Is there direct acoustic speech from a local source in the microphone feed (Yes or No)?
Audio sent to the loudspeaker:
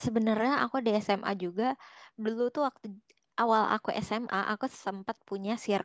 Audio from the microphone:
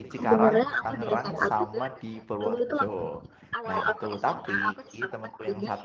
Yes